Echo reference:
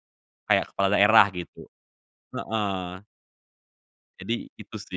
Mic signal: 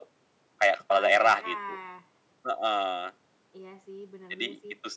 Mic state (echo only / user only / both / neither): both